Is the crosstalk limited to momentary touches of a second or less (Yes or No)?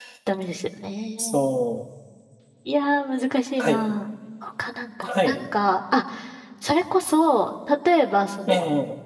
Yes